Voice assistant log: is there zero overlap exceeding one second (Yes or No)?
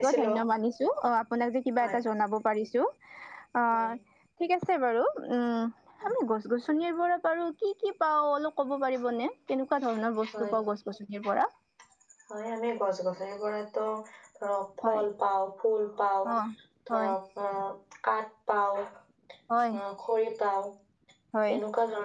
Yes